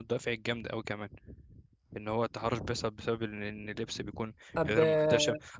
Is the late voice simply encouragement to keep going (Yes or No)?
Yes